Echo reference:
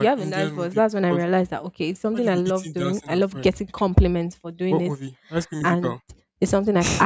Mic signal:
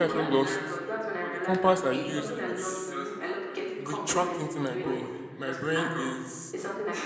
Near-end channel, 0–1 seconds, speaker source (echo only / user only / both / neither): both